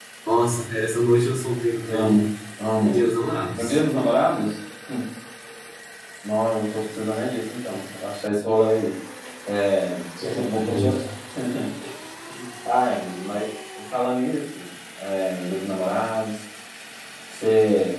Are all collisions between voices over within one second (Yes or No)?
Yes